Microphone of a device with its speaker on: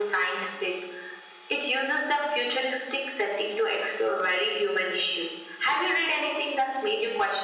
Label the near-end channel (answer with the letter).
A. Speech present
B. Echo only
B